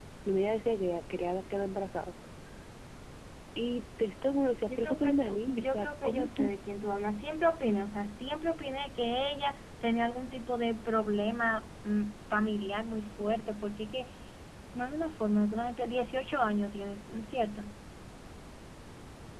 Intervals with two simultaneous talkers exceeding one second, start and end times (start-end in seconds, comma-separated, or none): 4.7-6.5